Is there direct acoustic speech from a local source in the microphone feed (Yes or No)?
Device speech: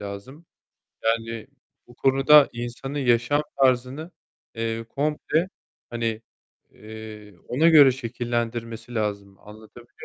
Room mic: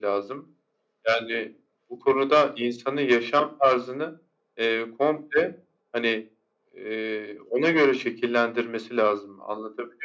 No